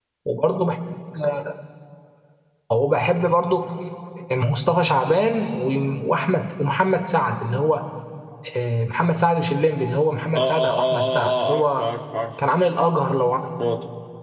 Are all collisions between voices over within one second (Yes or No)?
No